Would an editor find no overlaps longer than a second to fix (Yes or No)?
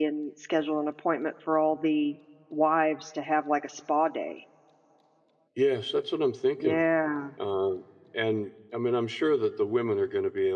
Yes